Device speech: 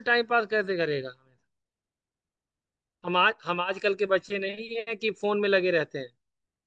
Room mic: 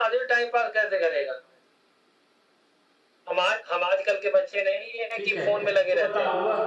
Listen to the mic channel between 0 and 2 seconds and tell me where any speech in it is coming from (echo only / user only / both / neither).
echo only